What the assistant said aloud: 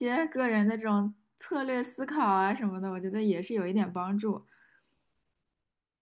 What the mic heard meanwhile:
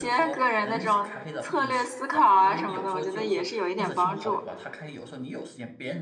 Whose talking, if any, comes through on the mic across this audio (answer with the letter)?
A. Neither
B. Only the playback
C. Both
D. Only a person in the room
C